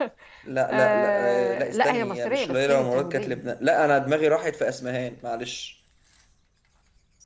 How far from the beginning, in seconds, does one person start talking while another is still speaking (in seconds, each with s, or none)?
0.7 s